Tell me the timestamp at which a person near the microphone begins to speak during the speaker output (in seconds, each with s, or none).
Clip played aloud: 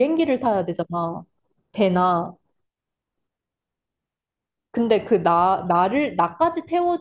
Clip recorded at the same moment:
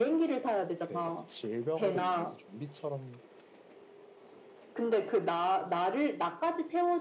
0.8 s